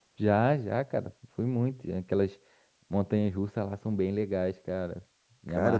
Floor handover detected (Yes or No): Yes